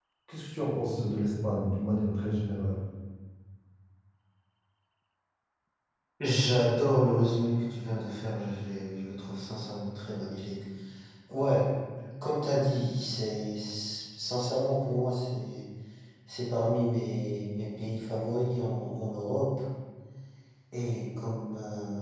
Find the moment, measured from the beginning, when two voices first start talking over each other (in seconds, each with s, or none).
none